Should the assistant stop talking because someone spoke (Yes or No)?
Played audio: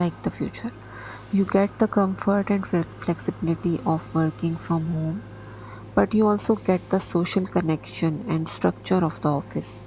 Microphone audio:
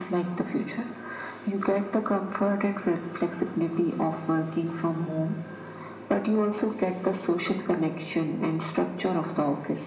No